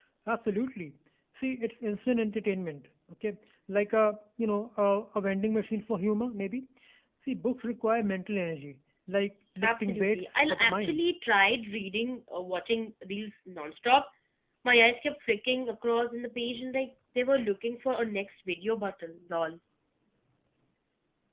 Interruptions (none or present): present